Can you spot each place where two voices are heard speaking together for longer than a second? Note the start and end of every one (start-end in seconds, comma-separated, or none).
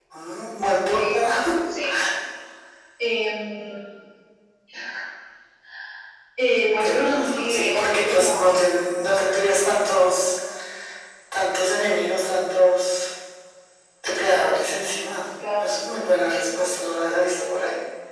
6.8-8.4